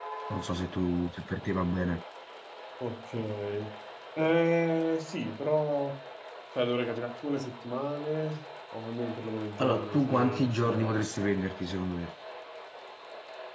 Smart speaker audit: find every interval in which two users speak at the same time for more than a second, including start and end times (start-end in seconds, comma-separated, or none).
9.6-11.0